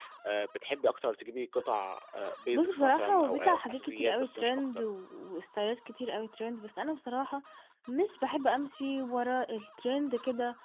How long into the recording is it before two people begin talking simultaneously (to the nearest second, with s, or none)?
3 s